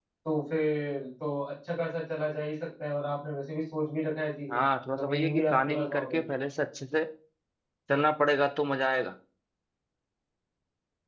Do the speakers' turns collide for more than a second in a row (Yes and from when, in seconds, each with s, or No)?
Yes, from 5.0 s